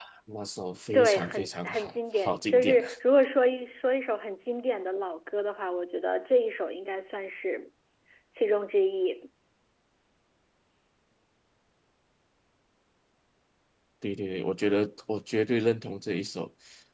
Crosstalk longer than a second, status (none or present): present